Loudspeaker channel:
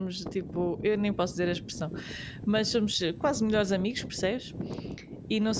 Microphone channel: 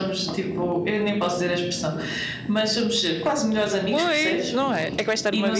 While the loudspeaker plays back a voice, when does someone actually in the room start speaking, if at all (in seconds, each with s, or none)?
3.9 s